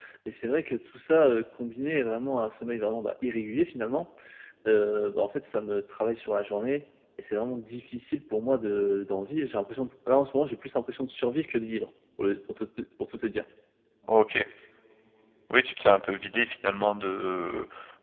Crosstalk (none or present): none